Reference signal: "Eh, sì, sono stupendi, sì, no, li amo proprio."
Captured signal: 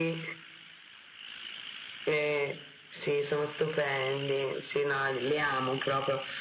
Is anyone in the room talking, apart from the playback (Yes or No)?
No